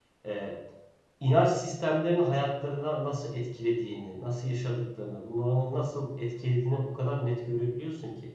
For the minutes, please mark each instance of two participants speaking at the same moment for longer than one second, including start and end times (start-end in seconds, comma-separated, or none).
none